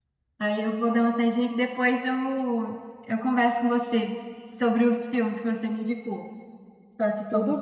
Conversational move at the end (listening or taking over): listening